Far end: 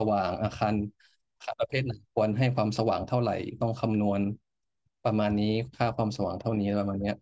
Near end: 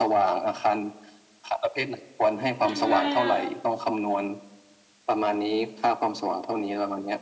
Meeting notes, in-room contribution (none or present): present